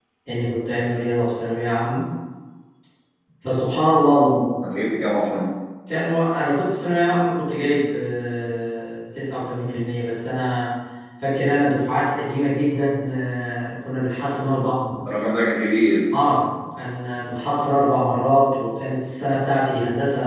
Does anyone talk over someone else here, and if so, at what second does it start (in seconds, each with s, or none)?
none